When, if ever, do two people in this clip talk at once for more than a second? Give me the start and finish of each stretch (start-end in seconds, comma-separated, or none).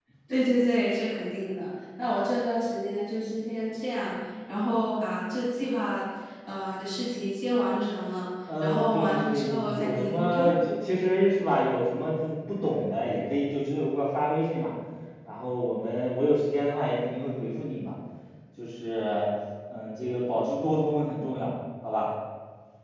8.6-10.6